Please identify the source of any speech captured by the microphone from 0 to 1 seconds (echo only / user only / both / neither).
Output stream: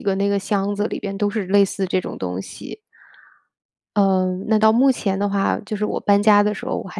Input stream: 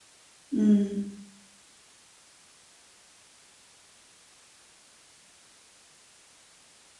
user only